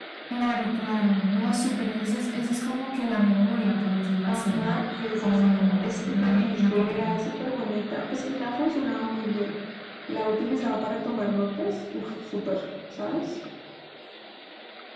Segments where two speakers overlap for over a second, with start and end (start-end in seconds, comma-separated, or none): 5.2-7.0